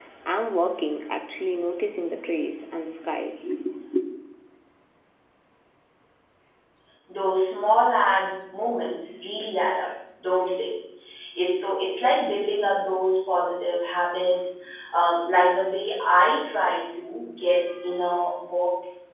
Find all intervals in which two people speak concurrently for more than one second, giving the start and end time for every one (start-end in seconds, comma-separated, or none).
none